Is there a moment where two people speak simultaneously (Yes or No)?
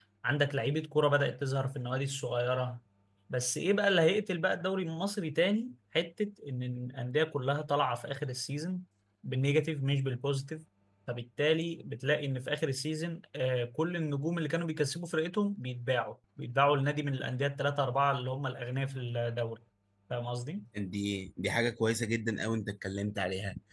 No